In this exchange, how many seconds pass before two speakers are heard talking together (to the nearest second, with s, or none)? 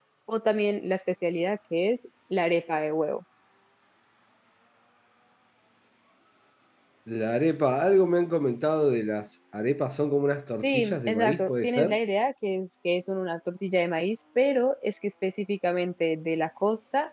11 s